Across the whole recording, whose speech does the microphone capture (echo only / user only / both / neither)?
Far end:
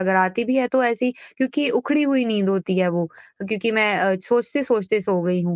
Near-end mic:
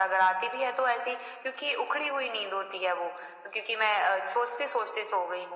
echo only